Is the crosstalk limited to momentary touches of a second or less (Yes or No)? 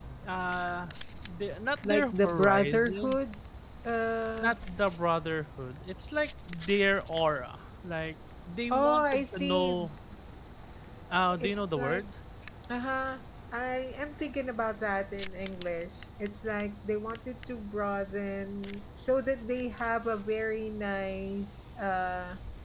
No